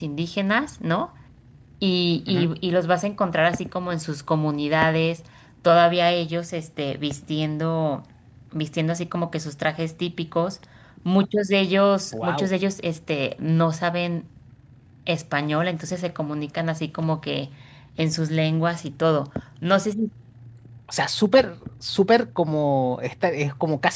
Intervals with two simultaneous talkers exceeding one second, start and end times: none

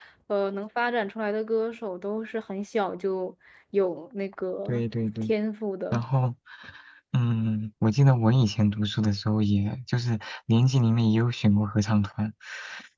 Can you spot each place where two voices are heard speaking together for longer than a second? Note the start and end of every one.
none

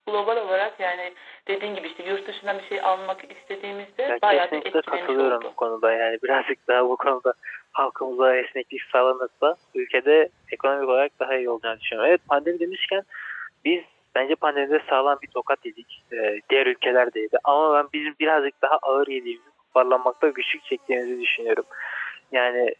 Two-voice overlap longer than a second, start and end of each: 4.1-5.5

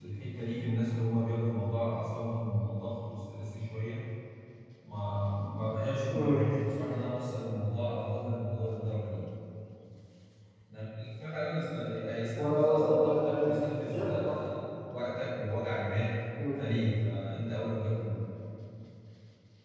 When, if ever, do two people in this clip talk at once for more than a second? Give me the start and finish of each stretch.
12.4-14.4

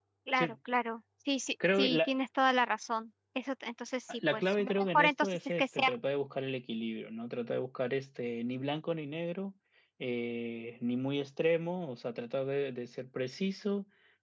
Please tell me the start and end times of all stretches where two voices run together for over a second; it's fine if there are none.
4.3-6.0

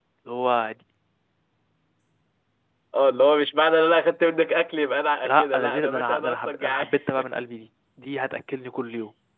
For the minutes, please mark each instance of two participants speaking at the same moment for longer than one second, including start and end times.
5.2-6.9

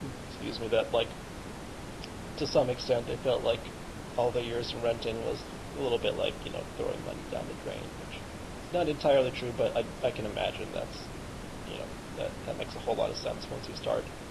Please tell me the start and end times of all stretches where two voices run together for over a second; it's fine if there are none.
none

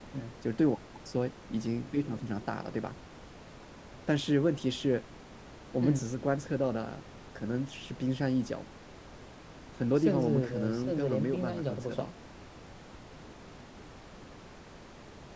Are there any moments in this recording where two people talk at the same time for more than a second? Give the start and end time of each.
10.0-12.1

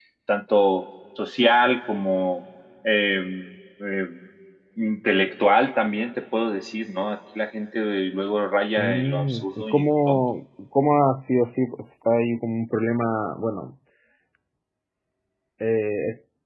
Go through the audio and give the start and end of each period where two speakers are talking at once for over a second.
8.8-10.2

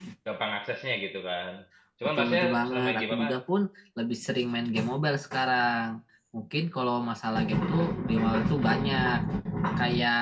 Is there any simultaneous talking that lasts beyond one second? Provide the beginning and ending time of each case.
2.1-3.4

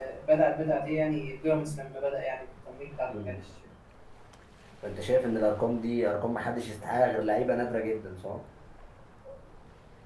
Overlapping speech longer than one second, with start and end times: none

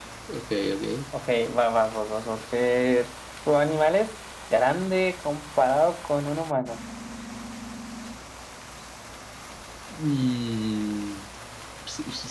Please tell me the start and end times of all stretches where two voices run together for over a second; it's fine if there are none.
none

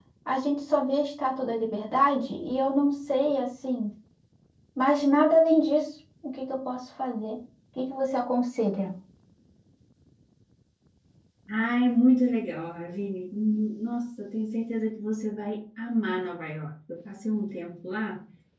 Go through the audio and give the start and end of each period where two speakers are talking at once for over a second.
none

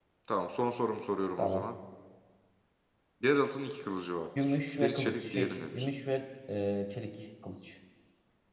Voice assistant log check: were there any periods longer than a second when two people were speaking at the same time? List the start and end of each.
4.4-5.9

